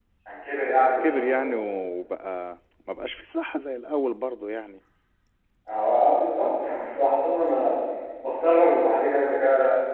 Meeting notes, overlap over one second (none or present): none